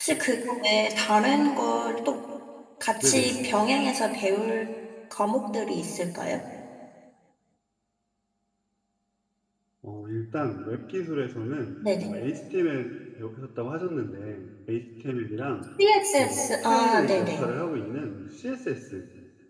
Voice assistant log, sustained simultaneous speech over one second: present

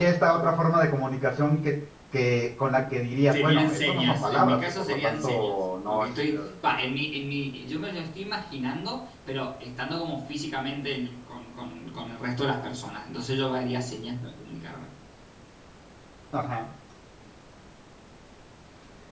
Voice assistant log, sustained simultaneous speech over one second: present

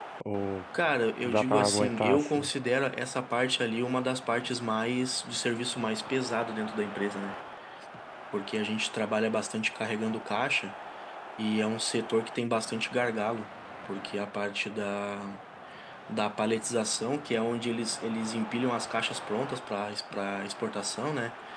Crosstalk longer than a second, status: present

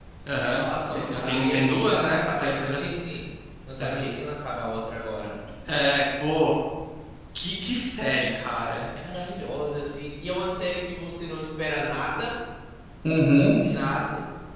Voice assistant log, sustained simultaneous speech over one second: present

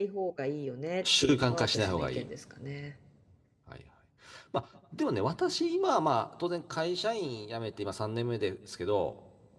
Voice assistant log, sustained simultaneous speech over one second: present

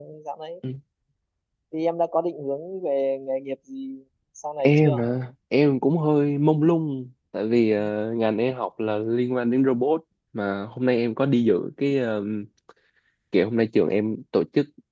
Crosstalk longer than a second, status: none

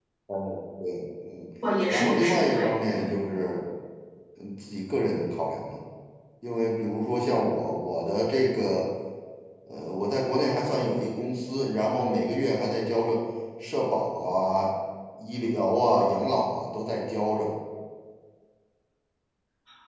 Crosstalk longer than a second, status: present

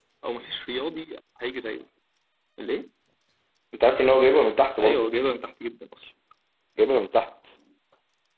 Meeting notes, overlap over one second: none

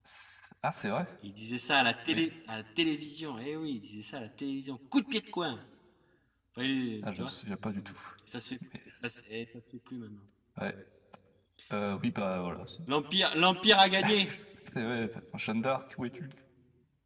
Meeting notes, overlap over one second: none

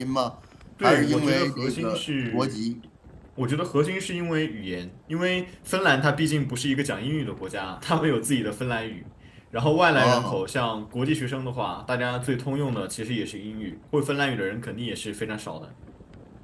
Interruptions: present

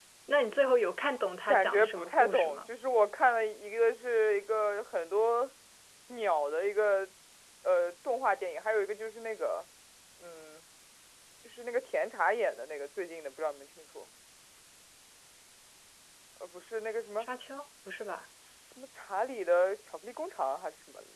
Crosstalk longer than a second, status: present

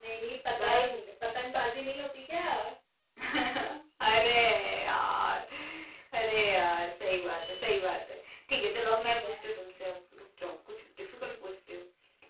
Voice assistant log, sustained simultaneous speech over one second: none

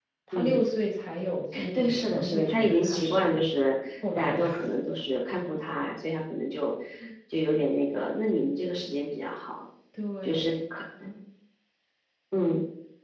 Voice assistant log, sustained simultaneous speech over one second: present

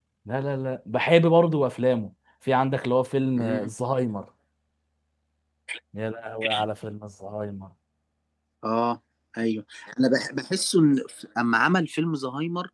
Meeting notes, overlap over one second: none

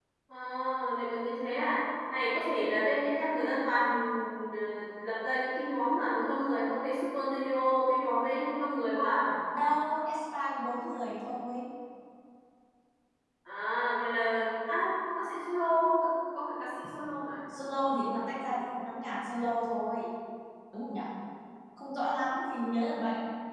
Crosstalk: none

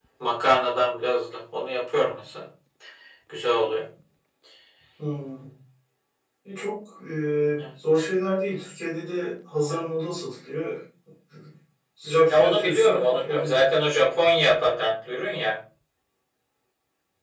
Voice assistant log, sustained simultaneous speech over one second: present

